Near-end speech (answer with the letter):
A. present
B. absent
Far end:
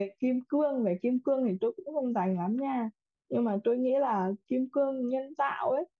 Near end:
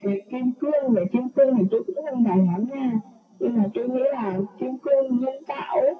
B